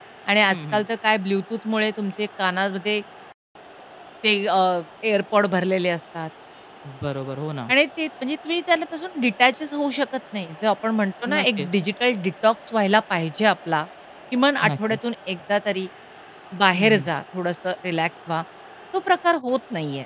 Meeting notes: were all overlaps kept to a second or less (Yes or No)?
Yes